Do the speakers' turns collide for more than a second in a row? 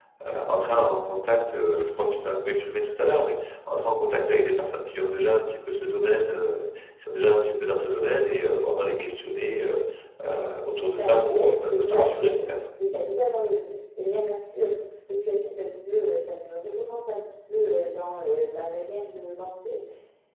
Yes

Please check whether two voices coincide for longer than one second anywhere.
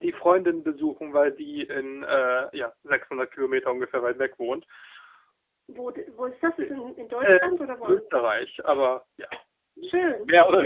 No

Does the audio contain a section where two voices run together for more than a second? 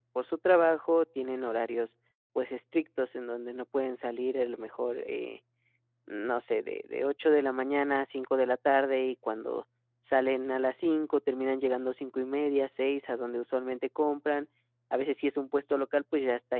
No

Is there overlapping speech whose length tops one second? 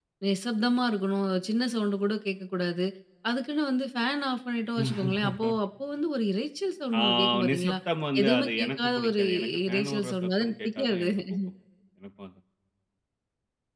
Yes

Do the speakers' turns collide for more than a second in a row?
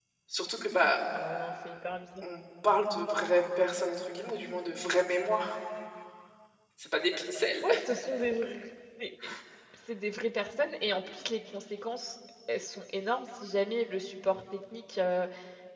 No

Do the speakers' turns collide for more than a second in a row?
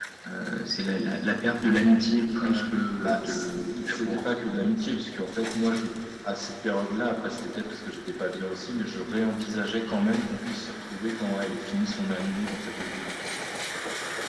Yes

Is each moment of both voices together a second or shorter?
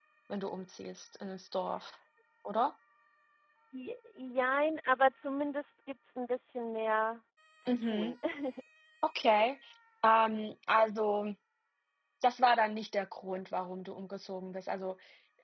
Yes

